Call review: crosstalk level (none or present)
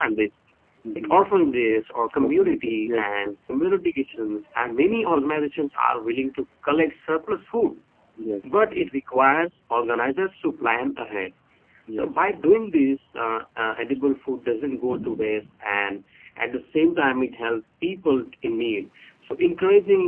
present